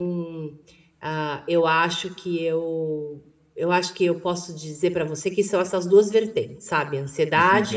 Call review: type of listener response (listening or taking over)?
taking over